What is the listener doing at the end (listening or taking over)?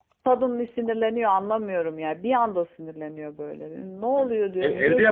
taking over